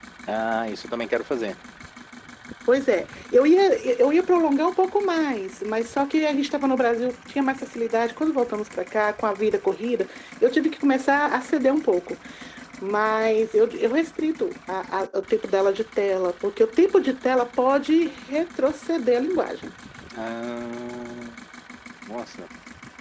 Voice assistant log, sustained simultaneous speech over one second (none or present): none